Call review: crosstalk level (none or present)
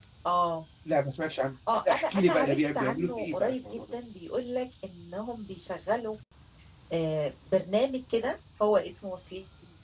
present